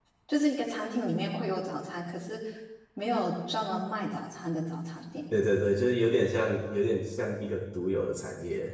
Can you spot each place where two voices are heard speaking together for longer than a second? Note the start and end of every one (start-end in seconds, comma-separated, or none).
none